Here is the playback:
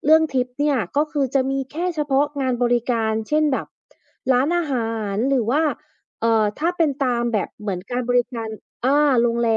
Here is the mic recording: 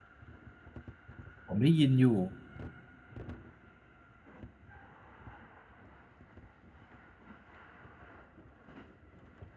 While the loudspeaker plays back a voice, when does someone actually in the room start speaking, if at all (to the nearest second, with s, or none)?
1 s